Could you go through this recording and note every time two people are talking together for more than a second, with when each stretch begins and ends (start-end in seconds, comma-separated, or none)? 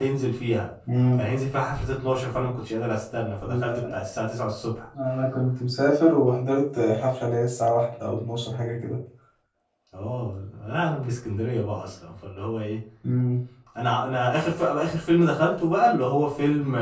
none